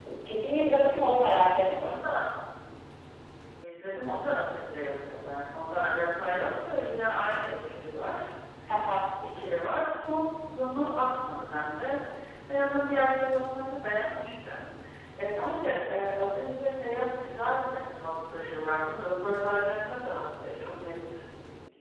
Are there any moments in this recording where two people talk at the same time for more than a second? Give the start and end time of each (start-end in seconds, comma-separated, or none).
none